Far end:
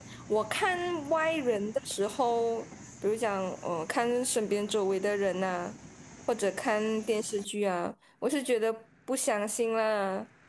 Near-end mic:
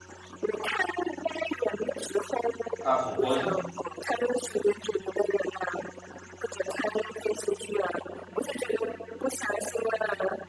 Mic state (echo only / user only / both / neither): both